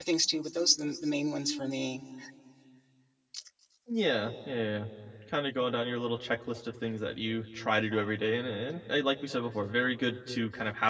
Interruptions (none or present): none